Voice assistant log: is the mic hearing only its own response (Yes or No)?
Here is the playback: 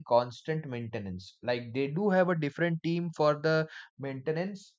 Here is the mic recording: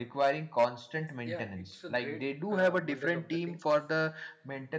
No